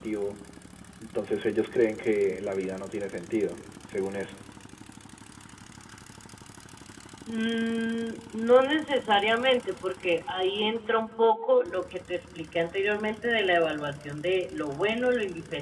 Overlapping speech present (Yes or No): No